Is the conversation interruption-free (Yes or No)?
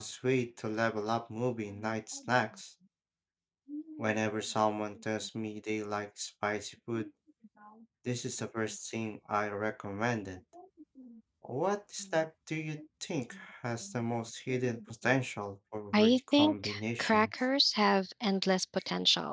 No